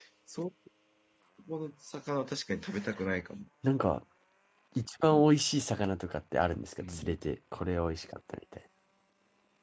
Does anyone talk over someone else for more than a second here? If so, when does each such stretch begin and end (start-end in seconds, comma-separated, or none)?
none